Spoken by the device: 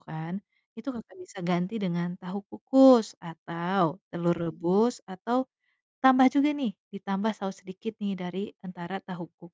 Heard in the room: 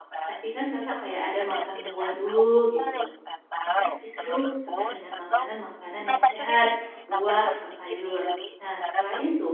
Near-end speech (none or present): present